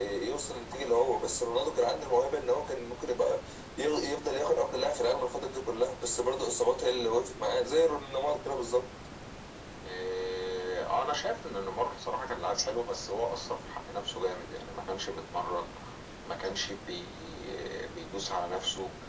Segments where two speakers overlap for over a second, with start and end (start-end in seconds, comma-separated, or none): none